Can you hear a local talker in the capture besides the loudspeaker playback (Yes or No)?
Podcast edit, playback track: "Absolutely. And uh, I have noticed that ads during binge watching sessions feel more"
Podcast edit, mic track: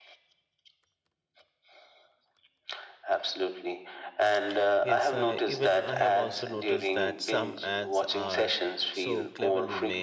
Yes